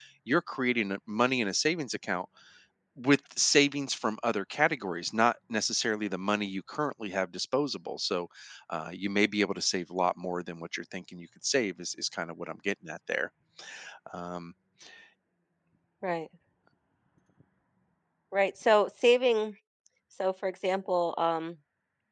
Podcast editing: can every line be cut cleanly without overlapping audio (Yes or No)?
Yes